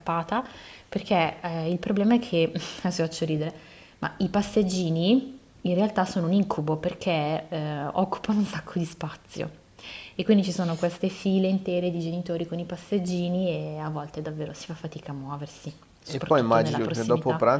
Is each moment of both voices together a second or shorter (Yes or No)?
No